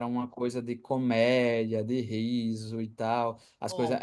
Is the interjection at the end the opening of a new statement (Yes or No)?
No